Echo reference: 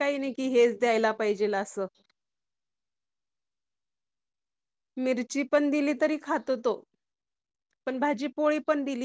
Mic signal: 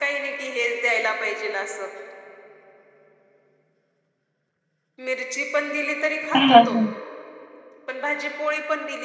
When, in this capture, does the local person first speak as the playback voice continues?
6.3 s

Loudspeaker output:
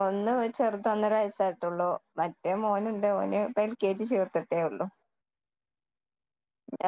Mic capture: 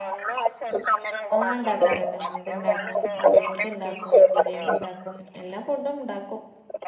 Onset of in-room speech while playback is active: 1.4 s

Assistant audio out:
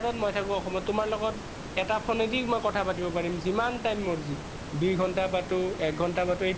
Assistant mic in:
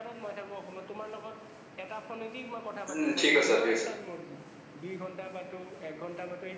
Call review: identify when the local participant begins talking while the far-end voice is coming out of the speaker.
2.9 s

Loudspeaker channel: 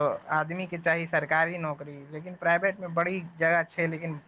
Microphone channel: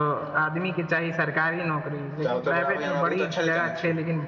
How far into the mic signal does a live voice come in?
2.2 s

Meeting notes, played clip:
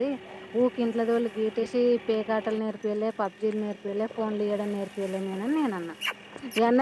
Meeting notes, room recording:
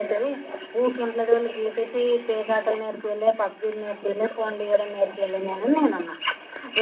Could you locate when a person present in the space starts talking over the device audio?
none

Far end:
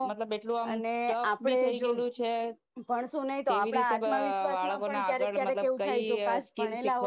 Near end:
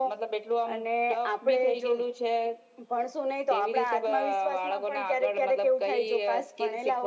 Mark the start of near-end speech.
none

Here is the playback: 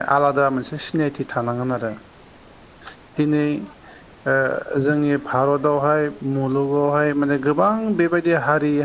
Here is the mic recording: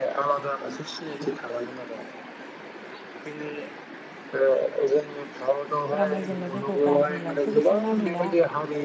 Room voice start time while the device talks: 6.0 s

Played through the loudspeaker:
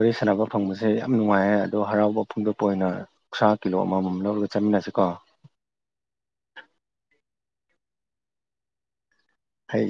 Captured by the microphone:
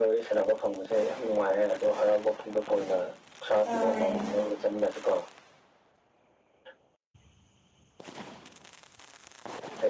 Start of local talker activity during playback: 3.6 s

